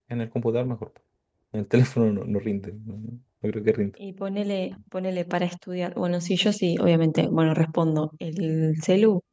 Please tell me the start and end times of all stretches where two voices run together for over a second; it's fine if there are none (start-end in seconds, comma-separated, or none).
none